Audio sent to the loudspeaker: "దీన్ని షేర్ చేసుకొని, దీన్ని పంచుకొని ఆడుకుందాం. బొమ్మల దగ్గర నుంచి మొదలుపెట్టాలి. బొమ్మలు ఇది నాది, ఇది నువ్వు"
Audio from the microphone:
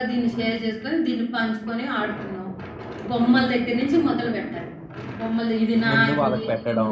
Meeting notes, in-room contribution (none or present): present